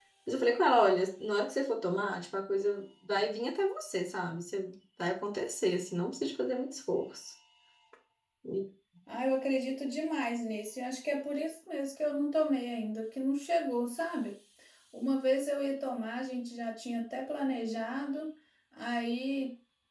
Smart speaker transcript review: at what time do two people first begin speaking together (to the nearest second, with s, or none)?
none